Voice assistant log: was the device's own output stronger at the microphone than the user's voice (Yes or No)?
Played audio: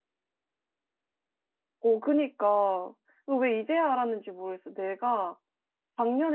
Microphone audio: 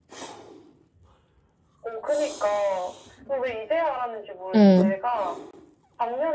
No